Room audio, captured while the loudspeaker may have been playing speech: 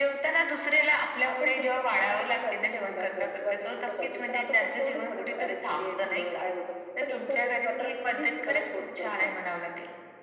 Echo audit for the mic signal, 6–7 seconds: echo only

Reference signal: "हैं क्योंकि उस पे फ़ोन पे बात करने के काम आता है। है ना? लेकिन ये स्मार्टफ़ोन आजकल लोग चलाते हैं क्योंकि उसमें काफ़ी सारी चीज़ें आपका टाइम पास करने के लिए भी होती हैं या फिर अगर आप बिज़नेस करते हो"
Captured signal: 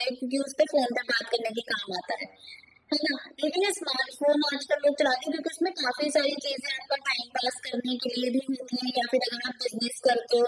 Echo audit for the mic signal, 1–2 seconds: echo only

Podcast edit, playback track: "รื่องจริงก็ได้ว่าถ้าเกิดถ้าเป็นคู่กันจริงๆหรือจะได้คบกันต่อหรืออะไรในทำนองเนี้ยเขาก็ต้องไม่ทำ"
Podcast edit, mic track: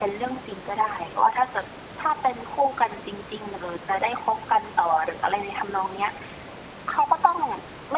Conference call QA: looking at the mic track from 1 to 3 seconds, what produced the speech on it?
echo only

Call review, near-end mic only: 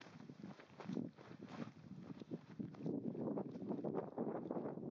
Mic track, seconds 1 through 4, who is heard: neither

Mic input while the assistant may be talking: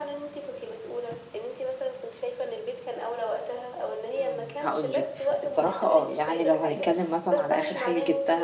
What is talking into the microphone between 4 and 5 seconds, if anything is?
both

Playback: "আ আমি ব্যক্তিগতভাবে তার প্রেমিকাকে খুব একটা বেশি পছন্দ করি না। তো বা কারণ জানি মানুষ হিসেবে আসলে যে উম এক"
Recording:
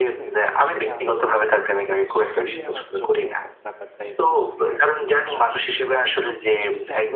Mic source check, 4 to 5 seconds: both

